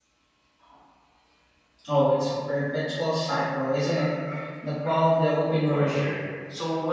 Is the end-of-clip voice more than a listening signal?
Yes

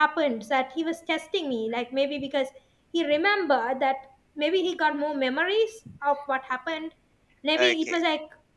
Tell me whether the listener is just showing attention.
Yes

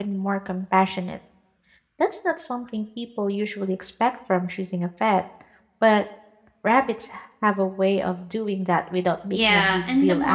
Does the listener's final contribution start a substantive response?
Yes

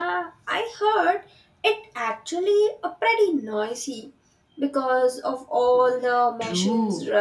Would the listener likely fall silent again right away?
No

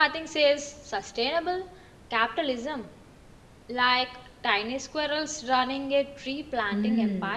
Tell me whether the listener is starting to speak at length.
Yes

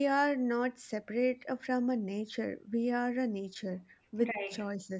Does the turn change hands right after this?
No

